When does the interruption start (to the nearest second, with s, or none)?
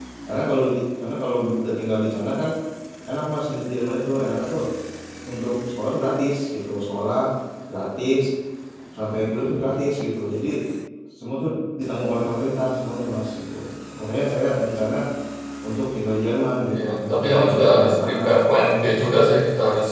17 s